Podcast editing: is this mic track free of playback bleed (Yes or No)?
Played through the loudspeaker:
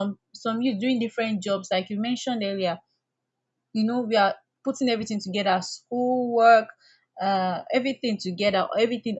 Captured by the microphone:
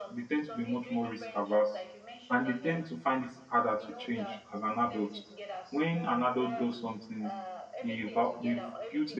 No